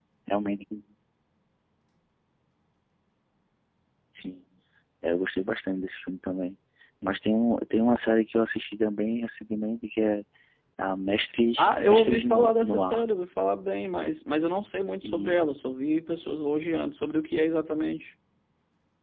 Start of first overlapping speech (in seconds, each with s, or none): 11.6 s